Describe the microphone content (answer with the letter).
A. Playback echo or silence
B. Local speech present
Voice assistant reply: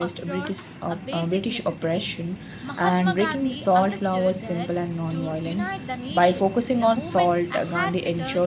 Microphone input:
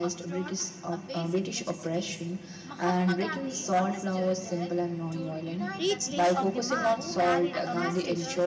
B